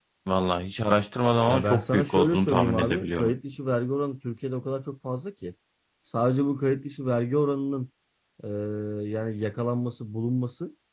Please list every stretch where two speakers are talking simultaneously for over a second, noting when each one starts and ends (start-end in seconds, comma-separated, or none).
1.5-3.3